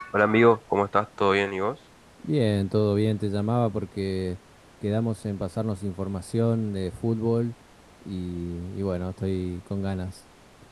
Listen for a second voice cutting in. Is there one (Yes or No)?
No